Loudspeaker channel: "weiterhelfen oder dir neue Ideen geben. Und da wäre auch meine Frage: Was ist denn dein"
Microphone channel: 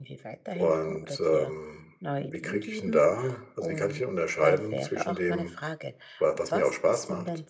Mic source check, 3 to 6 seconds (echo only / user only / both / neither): both